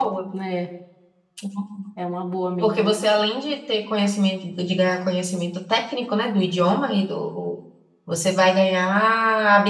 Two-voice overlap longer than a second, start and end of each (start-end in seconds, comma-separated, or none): none